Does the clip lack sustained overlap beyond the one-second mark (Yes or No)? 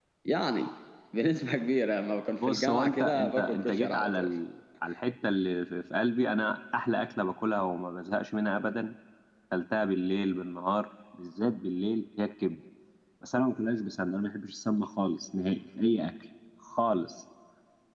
No